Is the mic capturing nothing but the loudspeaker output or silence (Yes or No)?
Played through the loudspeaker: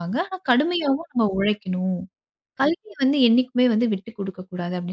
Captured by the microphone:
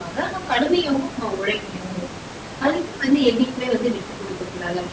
Yes